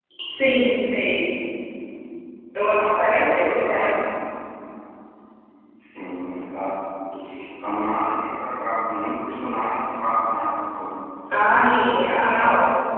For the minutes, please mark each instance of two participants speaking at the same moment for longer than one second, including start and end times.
2.7-3.9

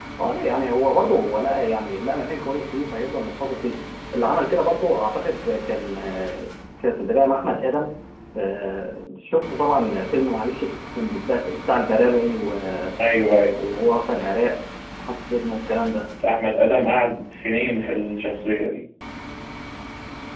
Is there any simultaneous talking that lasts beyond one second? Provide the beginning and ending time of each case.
none

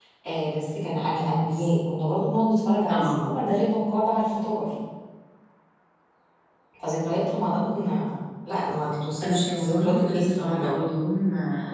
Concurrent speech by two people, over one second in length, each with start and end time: 9.2-10.8

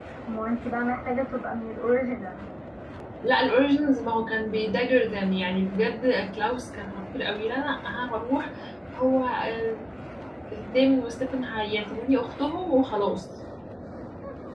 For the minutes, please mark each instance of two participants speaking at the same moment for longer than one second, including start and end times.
none

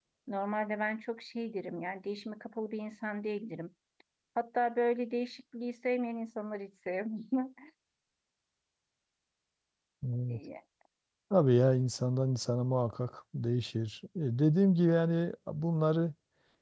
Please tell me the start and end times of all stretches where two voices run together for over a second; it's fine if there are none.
none

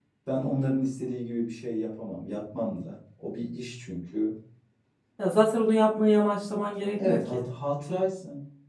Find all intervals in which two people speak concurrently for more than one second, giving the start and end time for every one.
none

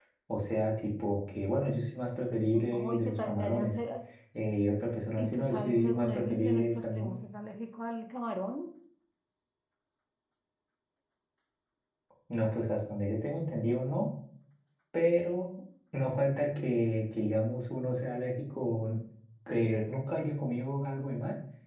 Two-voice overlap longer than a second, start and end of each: 2.5-3.7, 5.2-7.2

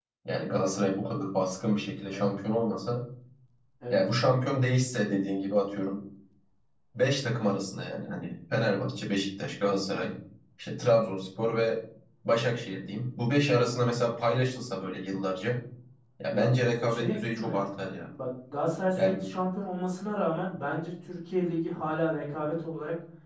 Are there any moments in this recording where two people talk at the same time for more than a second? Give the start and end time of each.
16.3-17.6

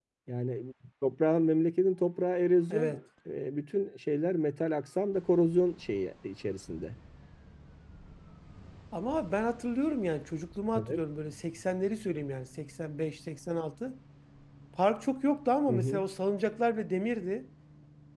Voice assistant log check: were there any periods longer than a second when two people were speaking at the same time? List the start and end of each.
none

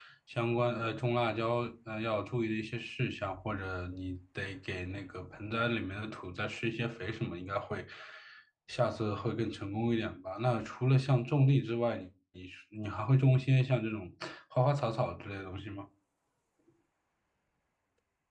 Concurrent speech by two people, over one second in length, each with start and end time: none

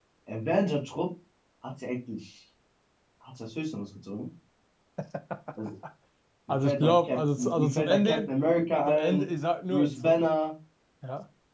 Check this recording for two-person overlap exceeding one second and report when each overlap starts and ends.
6.5-8.3

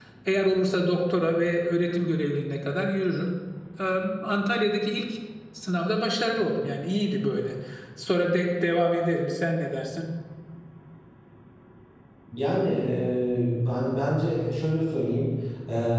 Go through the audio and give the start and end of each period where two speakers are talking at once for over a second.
none

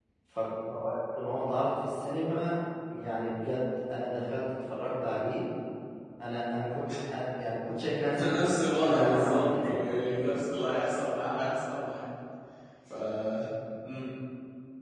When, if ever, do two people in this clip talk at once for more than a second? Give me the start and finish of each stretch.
8.2-10.4

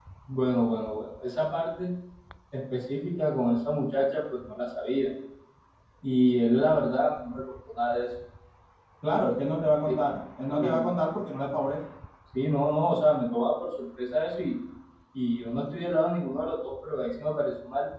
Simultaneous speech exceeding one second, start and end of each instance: none

